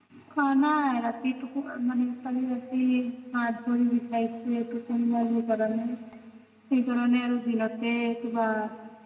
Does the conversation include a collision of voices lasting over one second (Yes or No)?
No